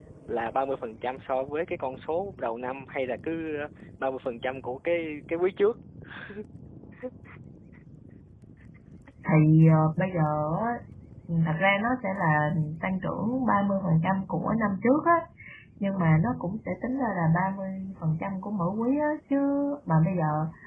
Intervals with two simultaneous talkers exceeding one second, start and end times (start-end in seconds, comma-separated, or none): none